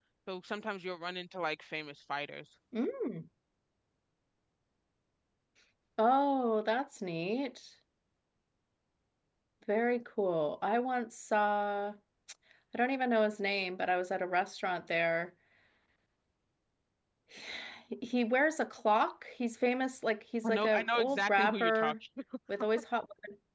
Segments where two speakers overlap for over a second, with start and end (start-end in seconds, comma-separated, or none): 20.4-21.9